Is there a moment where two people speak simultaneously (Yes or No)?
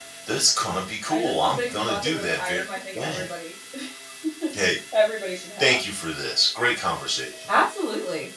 Yes